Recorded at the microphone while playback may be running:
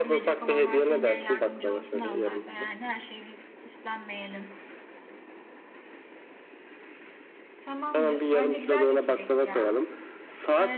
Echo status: present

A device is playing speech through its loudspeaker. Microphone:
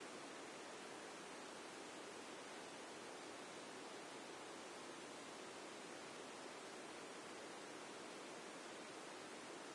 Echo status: none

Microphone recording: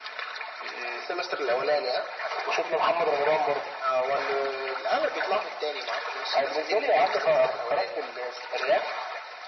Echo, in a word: present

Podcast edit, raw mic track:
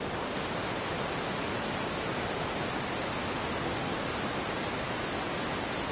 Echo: none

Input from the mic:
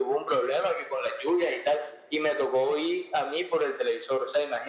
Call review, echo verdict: present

